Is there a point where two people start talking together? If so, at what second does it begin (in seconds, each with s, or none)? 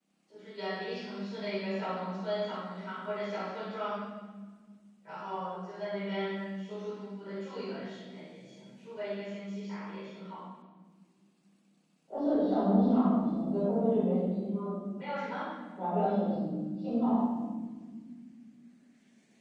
none